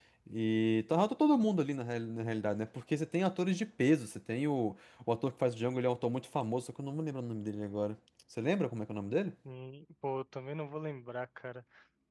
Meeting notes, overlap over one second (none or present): none